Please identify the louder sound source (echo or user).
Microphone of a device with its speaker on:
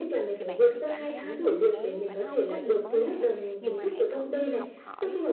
echo